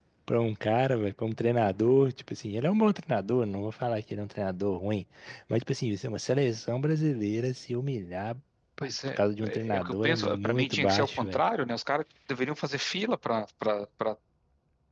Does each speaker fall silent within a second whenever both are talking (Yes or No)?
No